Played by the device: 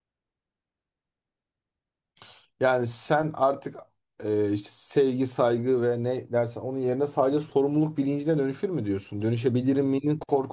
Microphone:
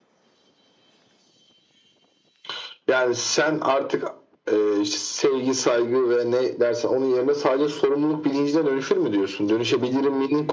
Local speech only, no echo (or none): none